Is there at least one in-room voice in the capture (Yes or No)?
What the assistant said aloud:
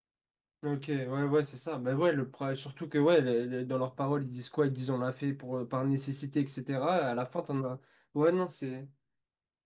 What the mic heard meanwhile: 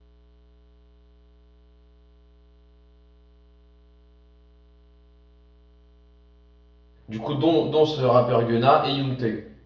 Yes